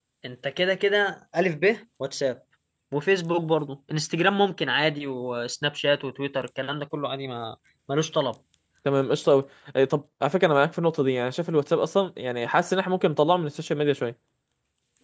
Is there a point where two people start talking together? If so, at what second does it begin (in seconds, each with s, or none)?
none